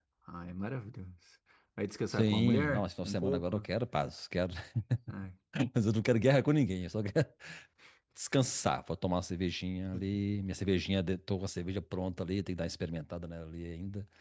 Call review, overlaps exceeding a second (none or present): present